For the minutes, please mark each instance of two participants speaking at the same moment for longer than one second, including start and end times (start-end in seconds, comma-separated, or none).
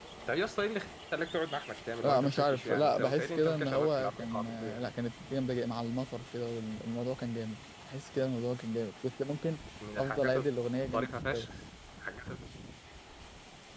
2.0-4.9